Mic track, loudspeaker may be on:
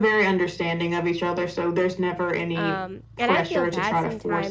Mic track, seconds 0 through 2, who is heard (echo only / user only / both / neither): echo only